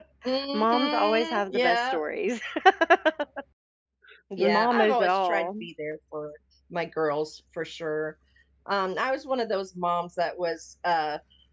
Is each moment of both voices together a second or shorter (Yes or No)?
No